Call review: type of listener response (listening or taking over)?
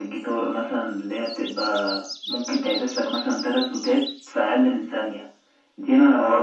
taking over